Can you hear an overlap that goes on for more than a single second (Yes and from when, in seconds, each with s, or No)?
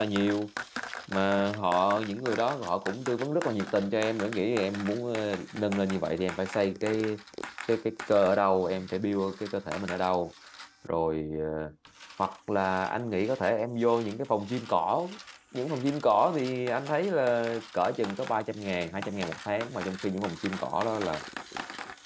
No